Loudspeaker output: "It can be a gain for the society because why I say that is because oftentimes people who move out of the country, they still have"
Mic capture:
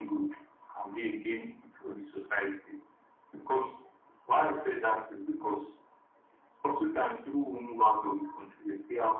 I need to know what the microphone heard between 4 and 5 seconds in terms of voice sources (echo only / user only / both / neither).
echo only